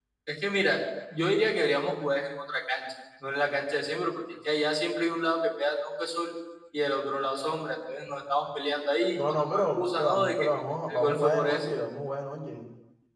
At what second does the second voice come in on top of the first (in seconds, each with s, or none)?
9.2 s